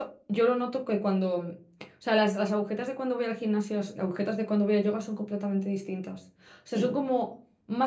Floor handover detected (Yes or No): No